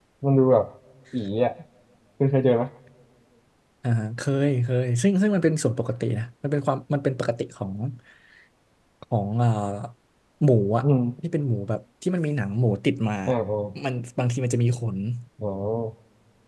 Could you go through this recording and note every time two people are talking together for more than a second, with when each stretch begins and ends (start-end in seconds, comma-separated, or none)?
none